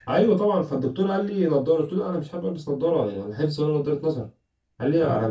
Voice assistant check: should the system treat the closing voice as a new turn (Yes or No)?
No